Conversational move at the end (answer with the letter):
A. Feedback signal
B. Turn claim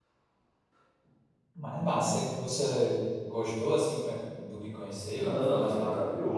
B